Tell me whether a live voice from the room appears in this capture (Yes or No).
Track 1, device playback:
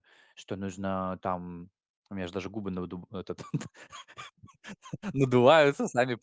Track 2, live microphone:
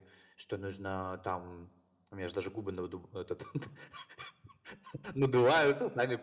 No